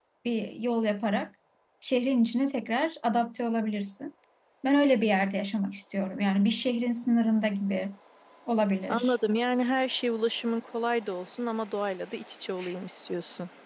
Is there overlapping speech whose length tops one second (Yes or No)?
No